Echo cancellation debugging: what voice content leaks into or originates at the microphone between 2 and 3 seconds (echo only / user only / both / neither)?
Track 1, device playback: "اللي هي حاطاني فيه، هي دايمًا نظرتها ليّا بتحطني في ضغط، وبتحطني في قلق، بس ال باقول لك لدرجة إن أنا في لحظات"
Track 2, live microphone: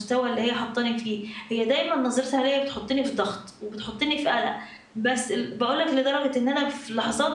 echo only